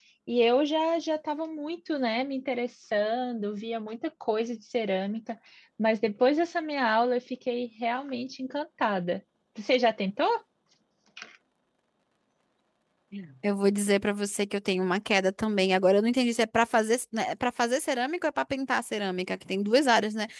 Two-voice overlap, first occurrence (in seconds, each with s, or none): none